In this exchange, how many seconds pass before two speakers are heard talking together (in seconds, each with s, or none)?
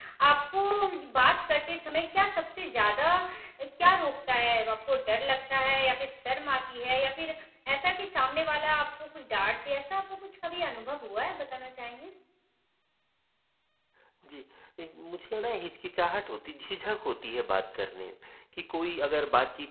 none